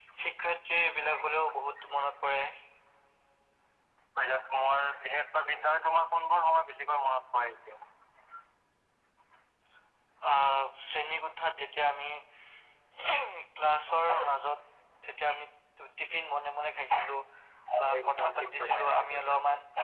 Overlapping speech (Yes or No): Yes